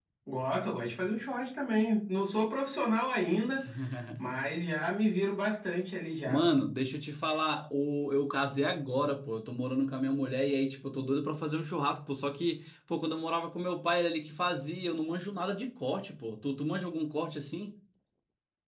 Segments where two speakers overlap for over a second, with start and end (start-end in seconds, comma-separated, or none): none